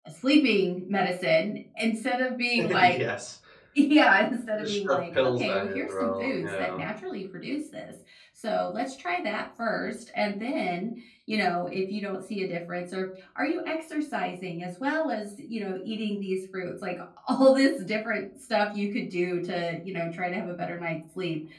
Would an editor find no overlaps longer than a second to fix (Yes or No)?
No